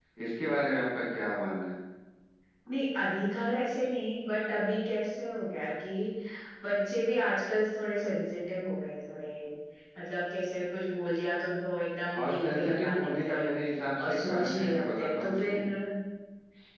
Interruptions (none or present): present